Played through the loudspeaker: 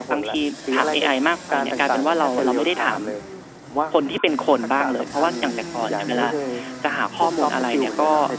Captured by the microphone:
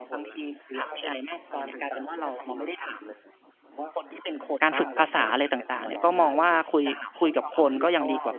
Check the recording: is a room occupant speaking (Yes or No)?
Yes